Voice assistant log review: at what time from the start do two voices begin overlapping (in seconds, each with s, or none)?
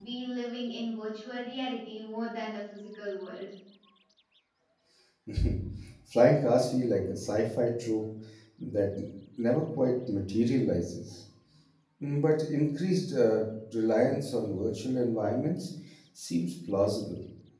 none